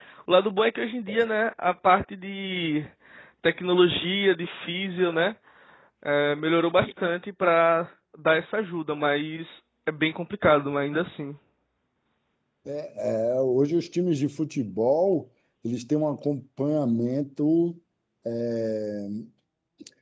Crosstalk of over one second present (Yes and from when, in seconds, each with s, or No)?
No